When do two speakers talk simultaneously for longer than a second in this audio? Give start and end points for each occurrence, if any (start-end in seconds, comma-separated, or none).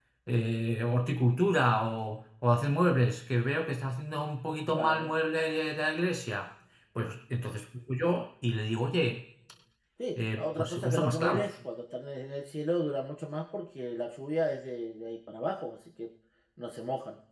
10.2-11.5